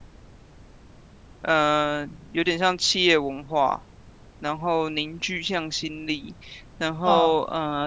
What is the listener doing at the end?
listening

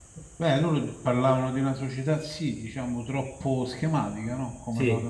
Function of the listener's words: listening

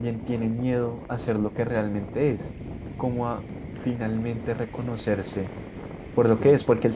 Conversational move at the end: listening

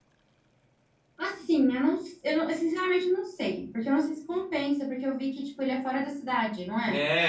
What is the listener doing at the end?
taking over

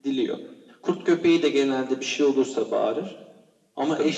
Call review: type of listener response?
listening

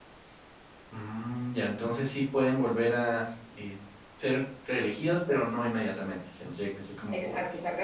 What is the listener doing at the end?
taking over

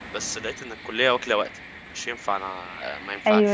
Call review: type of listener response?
taking over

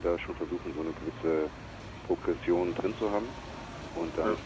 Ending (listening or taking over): listening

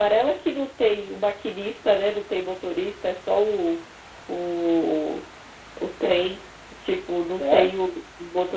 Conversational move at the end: listening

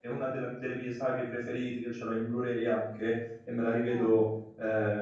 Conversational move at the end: listening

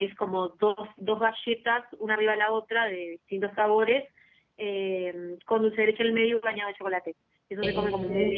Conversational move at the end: listening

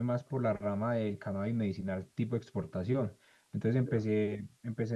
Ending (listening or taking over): listening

